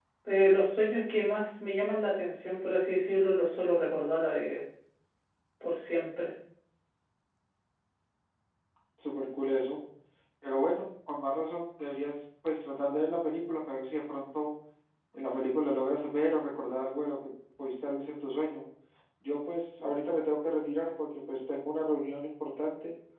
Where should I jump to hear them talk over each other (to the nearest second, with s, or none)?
none